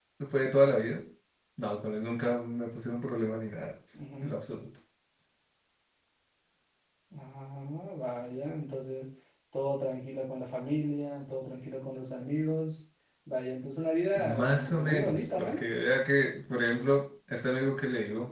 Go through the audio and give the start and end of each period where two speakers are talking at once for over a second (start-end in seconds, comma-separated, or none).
14.2-15.6